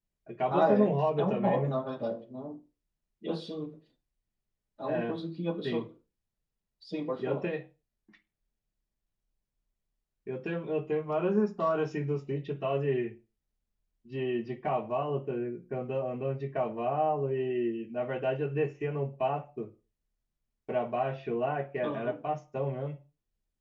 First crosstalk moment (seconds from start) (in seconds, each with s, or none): 0.5 s